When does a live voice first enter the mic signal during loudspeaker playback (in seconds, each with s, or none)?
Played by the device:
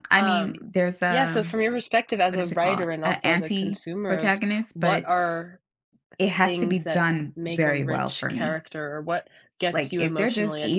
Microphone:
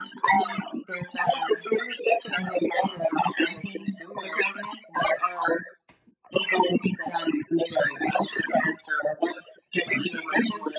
none